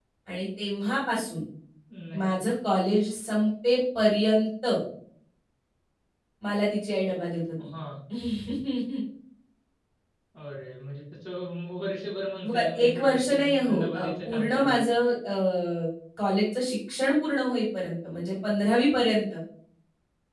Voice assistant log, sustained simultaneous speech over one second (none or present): present